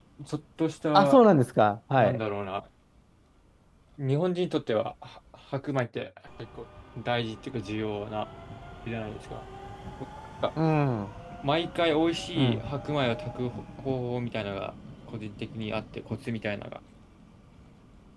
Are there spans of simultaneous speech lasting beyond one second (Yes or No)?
No